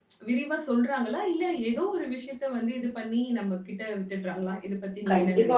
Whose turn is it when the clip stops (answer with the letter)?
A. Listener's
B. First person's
A